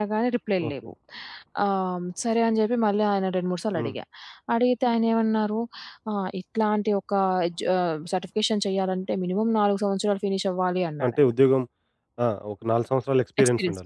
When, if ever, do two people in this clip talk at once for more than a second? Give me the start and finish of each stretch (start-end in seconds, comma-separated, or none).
none